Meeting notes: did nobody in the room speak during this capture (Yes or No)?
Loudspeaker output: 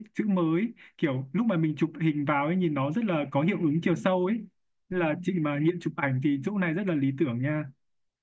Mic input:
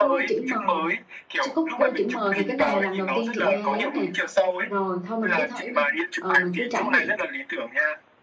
No